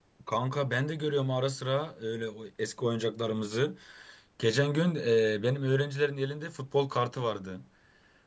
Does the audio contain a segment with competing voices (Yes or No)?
No